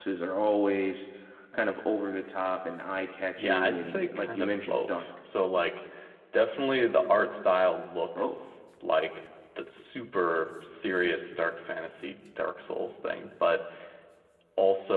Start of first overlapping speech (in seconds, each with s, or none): 3.4 s